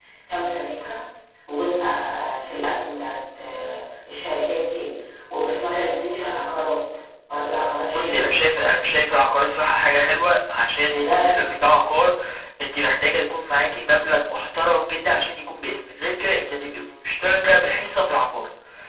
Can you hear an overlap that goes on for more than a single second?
No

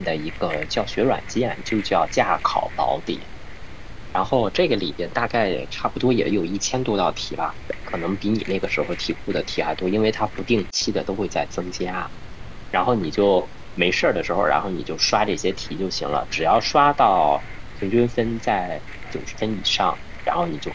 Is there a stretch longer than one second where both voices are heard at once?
No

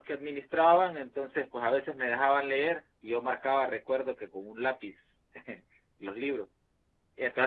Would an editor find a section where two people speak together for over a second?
No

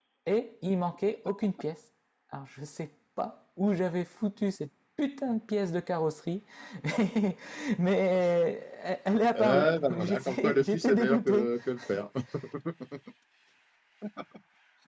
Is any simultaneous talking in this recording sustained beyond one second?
Yes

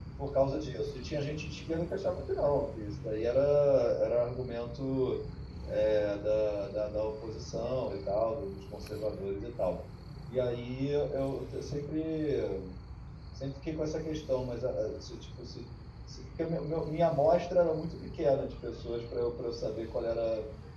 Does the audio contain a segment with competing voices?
No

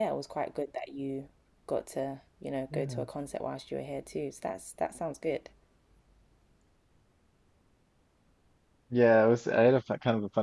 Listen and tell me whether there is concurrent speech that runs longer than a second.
No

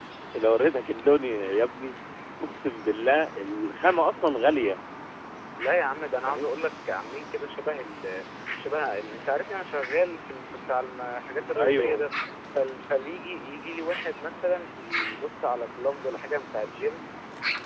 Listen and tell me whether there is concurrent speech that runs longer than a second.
No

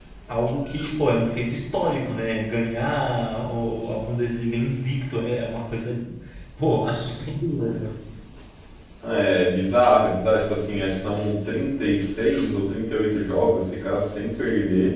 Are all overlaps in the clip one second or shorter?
Yes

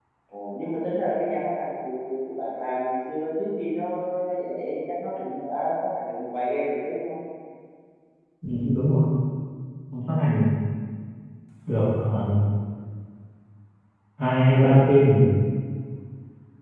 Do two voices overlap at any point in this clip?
No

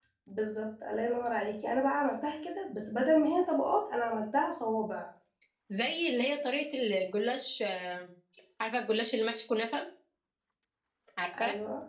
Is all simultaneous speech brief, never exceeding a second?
Yes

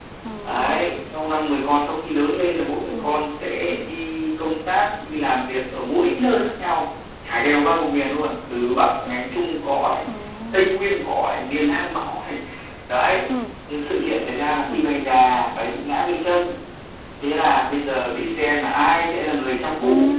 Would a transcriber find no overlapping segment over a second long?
Yes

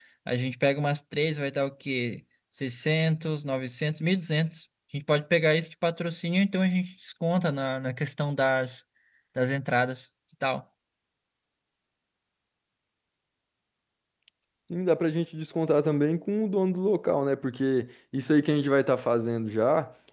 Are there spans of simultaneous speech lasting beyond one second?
No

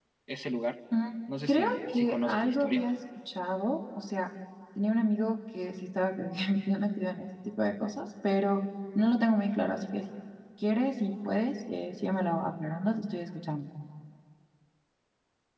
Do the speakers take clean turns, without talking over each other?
No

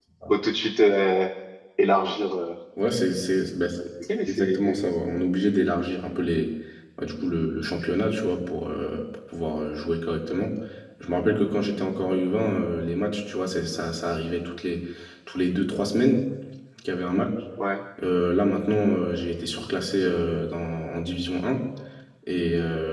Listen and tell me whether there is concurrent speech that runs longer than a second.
No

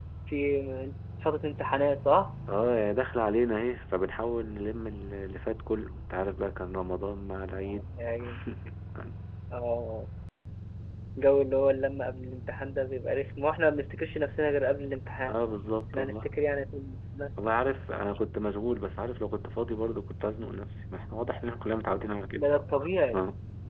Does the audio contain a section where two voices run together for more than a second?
No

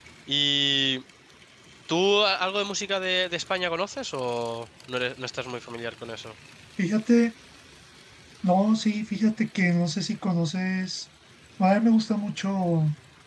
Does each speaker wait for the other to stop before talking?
Yes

